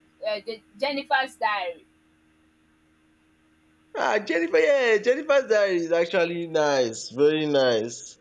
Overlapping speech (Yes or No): No